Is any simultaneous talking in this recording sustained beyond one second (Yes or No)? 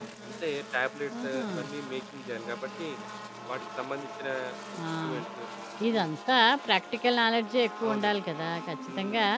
No